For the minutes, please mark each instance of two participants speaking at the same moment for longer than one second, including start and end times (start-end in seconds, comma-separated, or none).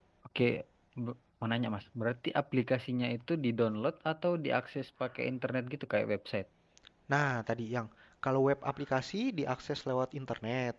none